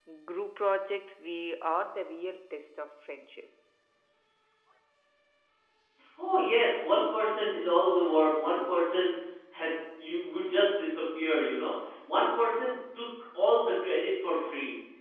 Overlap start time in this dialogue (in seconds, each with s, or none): none